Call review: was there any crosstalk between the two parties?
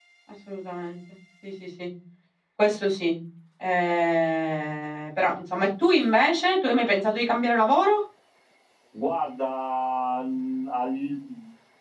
No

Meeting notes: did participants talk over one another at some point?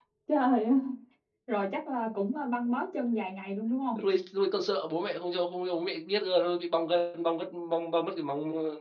No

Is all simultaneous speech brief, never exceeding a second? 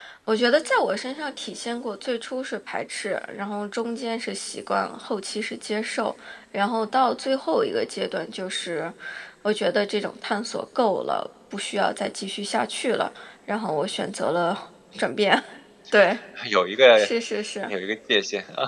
Yes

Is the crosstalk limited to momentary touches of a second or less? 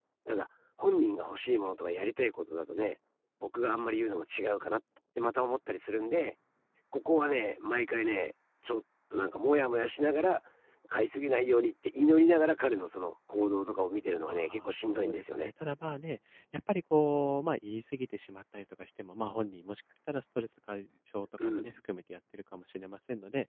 No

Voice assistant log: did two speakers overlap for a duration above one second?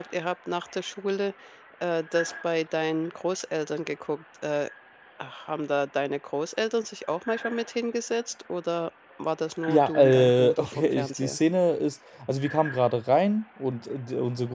Yes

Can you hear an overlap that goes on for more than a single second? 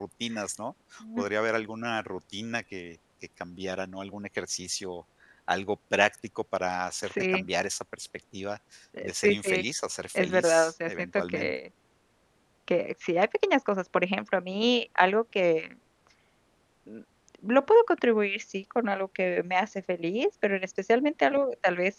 Yes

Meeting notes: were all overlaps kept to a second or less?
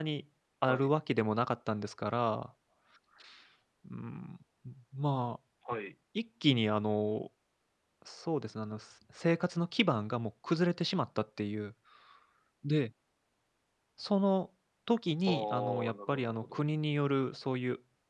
No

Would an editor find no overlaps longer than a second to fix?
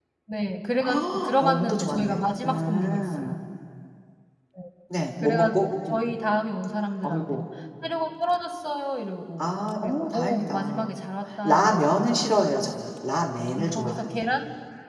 No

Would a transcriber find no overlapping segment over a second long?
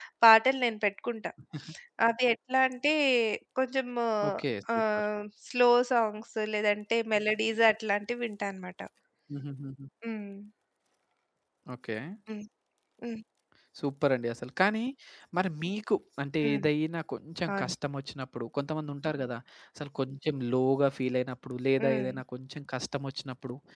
Yes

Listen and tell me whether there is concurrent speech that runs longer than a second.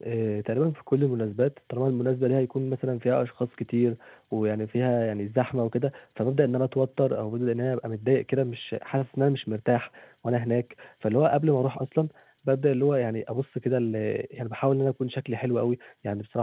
No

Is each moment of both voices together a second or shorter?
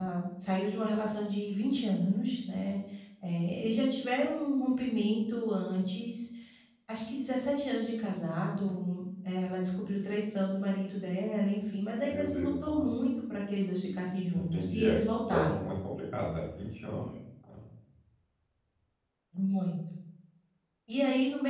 No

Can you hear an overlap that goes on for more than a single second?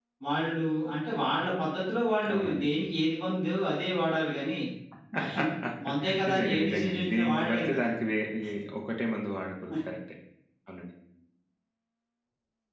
Yes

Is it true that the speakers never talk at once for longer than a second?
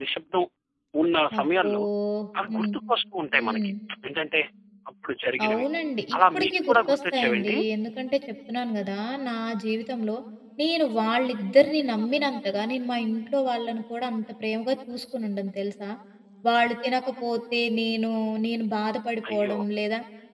No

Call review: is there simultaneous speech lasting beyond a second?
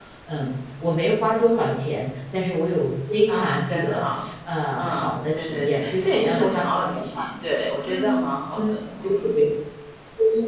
Yes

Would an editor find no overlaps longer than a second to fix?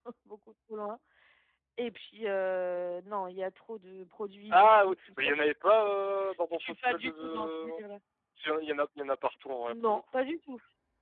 No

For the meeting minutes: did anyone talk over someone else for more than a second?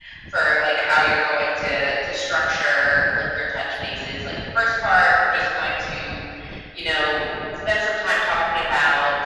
No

